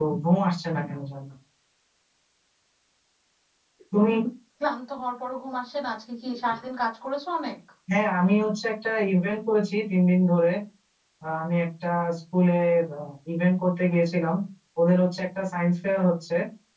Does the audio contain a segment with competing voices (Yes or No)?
No